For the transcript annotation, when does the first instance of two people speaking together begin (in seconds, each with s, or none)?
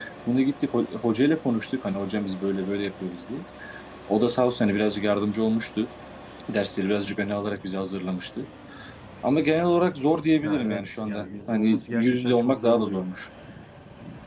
10.4 s